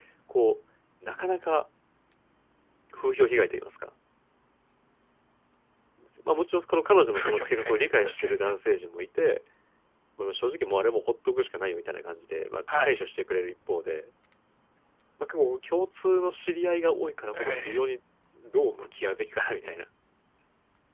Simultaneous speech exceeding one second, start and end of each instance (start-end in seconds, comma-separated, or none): 7.2-8.5